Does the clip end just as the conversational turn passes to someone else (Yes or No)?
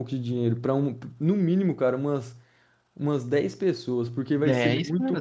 Yes